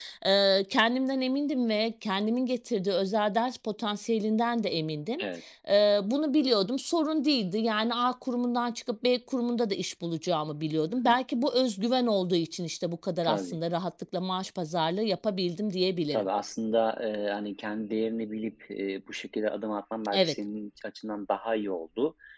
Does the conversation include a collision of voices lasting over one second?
No

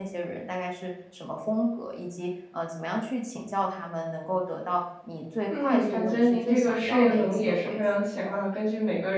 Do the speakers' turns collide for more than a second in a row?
Yes, from 5.5 s

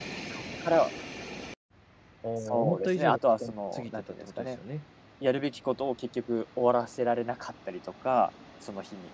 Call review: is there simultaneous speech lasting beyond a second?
Yes, from 2.4 s

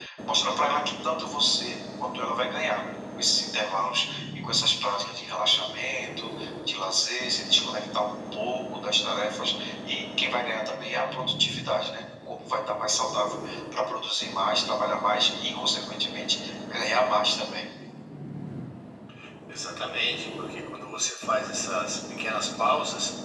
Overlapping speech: No

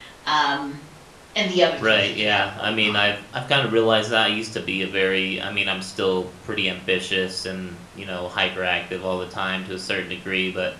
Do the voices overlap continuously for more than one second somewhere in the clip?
Yes, from 1.8 s

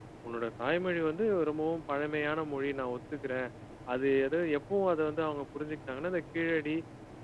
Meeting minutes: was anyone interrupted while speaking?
No

